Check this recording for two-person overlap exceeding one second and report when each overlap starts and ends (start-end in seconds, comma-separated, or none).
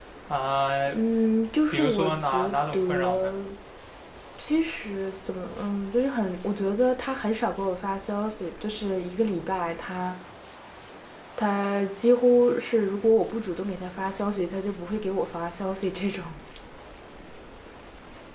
1.7-3.3